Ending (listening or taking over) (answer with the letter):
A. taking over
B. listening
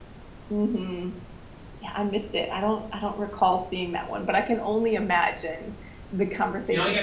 A